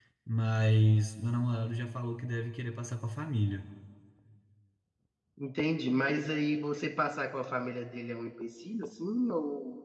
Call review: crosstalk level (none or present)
none